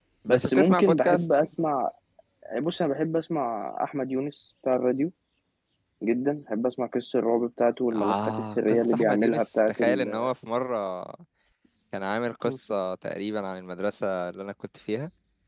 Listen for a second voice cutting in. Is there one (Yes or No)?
Yes